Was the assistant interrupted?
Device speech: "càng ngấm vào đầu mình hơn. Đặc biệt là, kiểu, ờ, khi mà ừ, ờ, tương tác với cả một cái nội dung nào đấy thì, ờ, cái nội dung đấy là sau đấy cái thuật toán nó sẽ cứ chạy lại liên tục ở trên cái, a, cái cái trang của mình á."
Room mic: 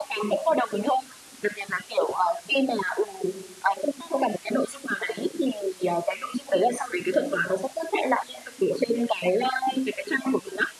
No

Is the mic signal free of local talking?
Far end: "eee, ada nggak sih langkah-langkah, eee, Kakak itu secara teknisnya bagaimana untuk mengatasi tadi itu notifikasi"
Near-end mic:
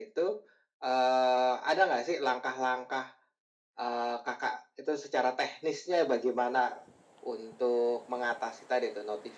Yes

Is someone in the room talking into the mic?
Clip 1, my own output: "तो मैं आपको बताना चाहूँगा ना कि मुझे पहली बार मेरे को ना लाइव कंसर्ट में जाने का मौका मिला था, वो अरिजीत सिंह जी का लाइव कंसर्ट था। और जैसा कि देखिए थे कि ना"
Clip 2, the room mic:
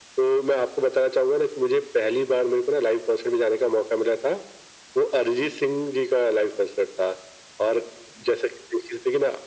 No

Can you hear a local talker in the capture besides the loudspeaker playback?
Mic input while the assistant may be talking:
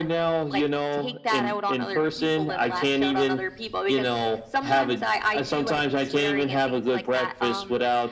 No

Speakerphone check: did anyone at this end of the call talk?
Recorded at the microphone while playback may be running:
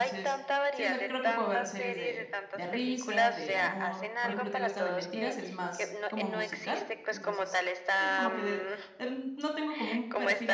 Yes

